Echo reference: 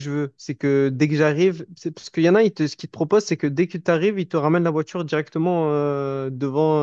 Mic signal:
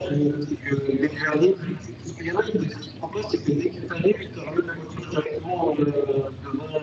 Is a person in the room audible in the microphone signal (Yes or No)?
No